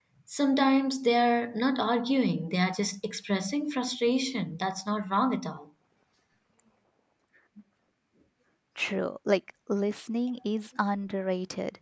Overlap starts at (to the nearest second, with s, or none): none